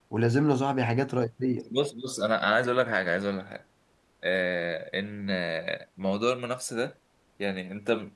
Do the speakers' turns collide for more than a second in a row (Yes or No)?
No